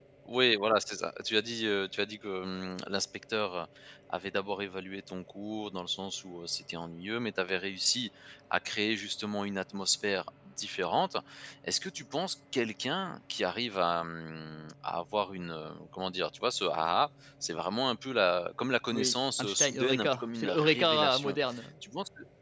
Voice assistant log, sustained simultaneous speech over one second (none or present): present